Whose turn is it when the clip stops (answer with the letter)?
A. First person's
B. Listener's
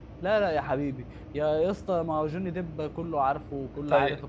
B